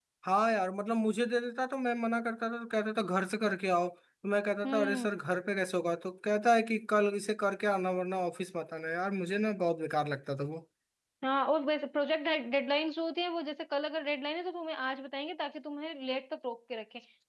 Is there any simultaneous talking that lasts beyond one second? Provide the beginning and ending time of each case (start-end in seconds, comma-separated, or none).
none